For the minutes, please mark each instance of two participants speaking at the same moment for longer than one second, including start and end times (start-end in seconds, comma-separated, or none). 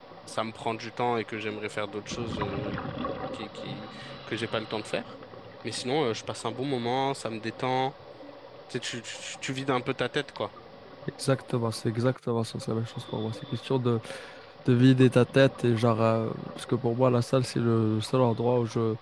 none